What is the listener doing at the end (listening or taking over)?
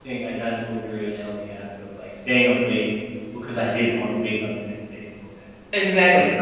taking over